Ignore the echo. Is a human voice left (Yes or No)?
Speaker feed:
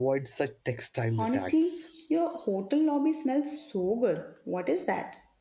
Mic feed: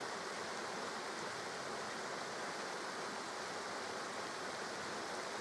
No